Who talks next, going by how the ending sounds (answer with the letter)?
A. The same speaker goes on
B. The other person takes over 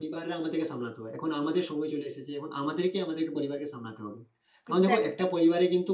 A